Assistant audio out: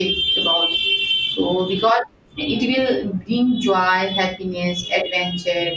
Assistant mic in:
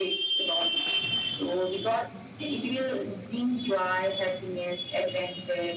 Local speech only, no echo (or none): none